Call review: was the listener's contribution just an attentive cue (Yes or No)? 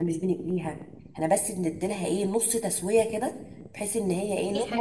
Yes